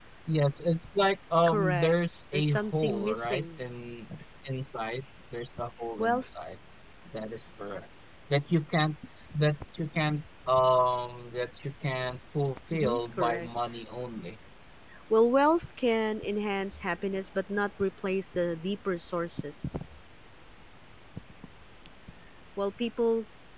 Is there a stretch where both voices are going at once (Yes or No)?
Yes